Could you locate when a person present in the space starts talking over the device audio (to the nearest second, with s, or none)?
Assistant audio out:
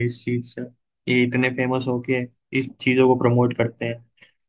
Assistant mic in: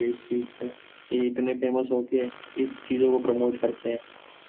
none